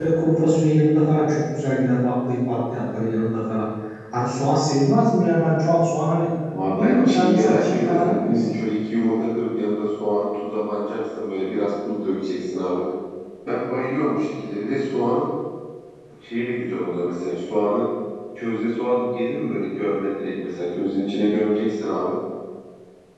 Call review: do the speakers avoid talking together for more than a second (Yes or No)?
No